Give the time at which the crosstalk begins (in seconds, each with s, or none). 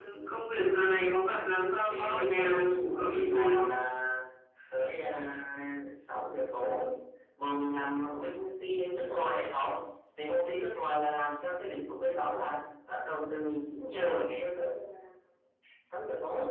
1.9 s